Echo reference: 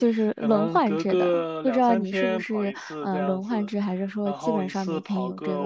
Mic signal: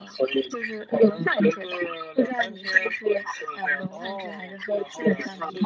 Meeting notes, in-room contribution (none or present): present